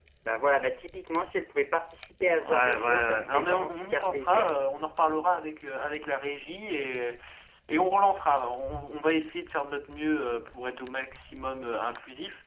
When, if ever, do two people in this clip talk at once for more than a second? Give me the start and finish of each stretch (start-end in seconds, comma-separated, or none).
2.4-4.5